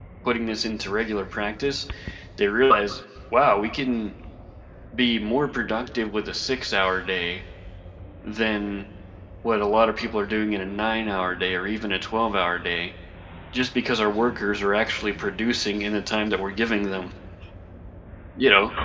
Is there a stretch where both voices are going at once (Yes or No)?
No